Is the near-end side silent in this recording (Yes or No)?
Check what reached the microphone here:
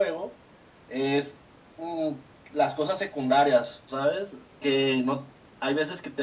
Yes